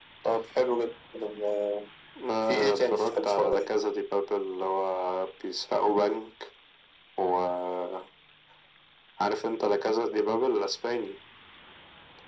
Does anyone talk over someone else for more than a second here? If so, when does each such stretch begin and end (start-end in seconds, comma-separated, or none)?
2.4-3.7